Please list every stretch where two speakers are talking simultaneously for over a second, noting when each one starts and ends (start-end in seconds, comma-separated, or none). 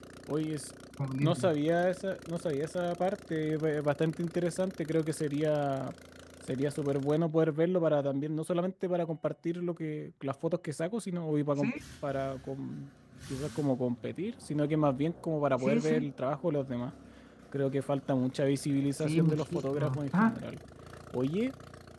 19.0-20.4